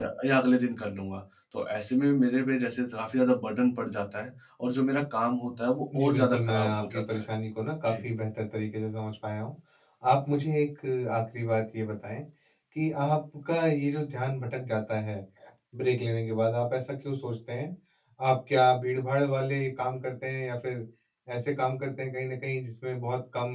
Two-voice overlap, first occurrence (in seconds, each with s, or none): 5.9 s